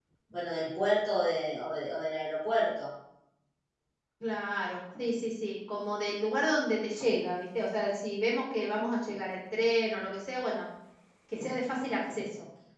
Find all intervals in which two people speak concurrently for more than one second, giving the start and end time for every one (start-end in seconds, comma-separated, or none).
none